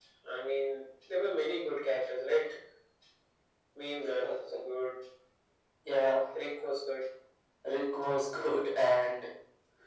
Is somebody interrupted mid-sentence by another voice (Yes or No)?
No